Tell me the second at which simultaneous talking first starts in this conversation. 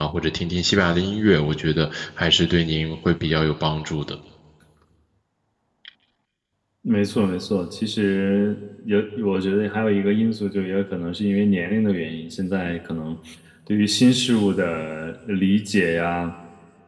none

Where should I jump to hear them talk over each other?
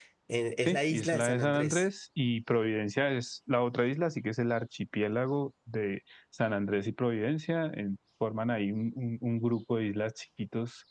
0.6 s

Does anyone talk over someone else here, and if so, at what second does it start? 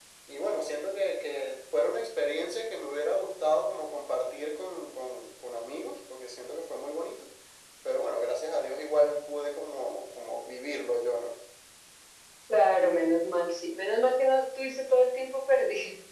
none

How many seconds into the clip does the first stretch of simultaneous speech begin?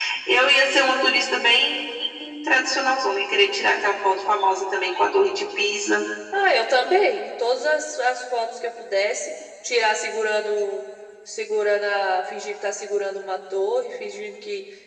none

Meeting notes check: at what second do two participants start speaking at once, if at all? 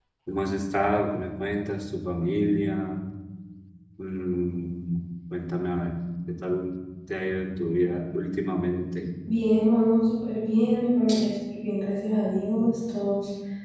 none

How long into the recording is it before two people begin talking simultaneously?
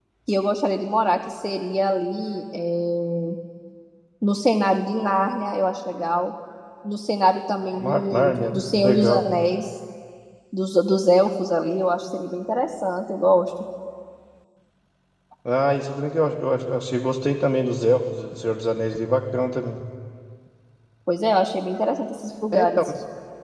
7.8 s

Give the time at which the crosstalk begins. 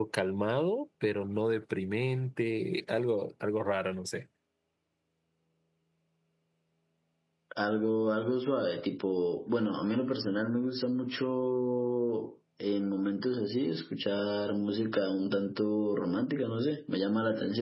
none

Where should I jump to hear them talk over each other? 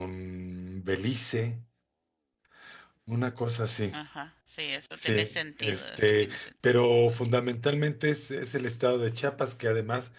5.0 s

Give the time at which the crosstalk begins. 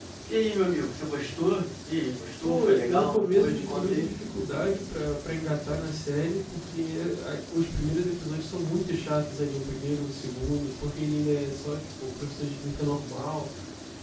2.4 s

